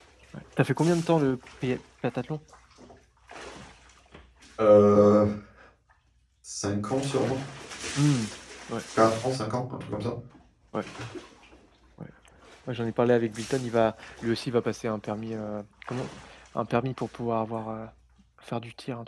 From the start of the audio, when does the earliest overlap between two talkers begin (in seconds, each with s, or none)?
none